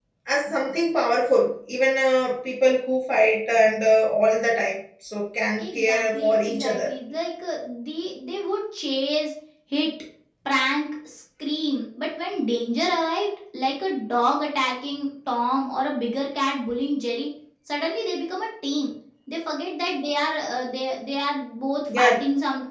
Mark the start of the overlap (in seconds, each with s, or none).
5.6 s